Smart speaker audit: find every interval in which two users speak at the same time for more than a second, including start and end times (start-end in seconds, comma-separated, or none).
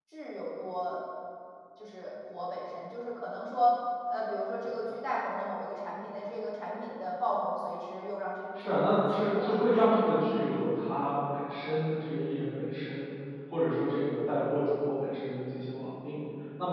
8.6-9.9